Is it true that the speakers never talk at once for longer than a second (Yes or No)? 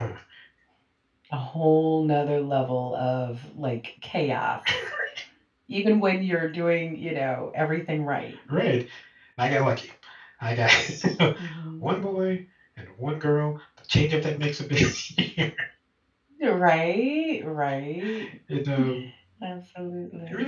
Yes